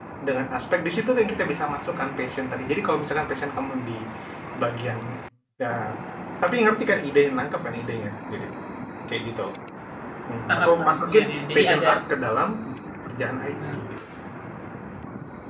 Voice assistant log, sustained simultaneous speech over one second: present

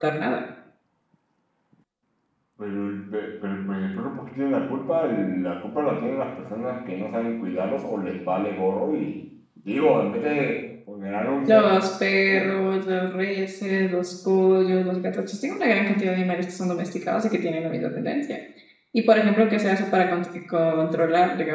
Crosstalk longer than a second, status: none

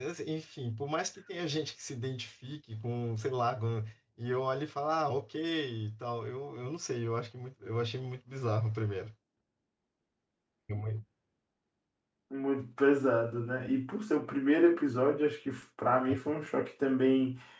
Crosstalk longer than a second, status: none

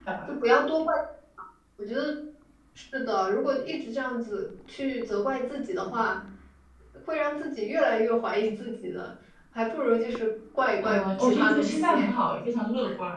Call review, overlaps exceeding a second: present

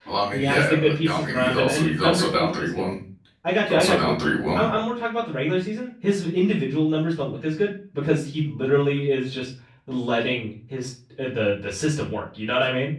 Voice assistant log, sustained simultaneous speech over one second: present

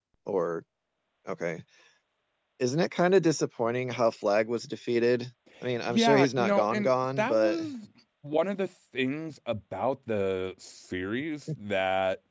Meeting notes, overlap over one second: present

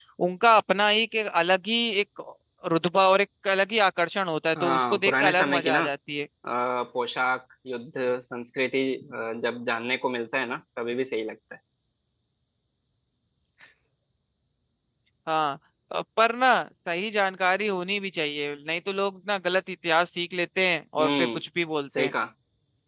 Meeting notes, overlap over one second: present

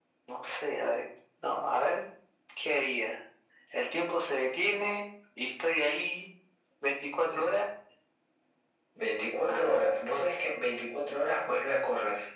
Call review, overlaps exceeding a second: none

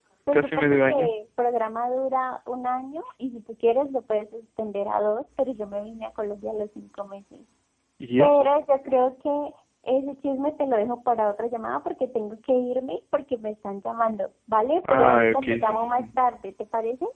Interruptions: present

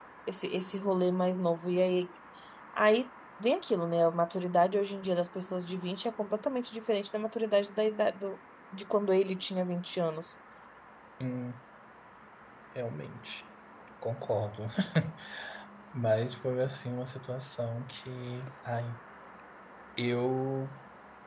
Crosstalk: none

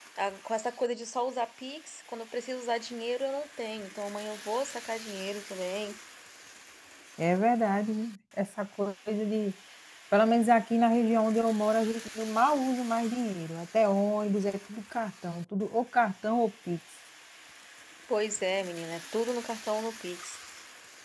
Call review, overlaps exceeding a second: none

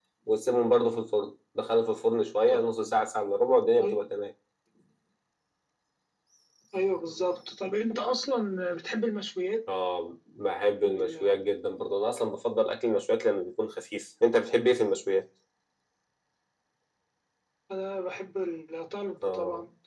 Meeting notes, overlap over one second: none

